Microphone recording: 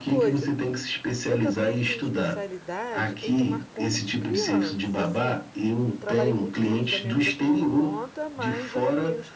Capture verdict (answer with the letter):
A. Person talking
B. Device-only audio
A